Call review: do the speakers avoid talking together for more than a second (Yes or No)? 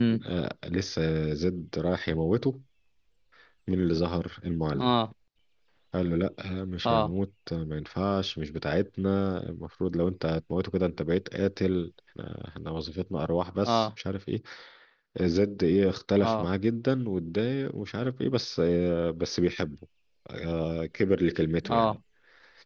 Yes